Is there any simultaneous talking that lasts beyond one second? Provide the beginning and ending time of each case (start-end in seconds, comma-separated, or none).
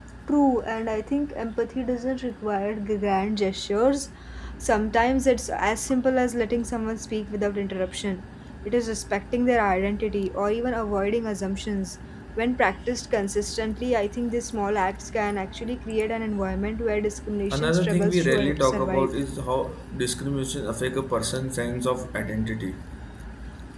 17.5-19.1